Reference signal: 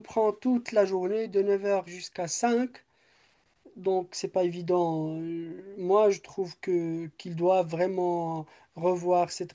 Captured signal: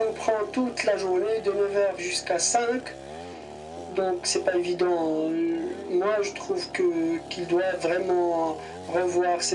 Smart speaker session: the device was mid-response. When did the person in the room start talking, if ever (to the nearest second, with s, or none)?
none